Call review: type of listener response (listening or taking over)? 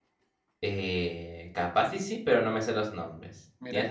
taking over